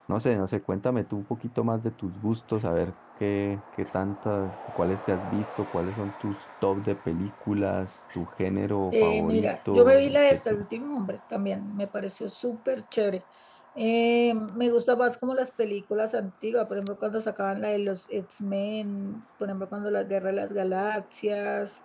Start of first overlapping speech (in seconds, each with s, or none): 8.9 s